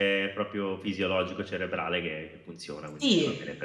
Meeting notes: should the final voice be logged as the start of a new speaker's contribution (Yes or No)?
Yes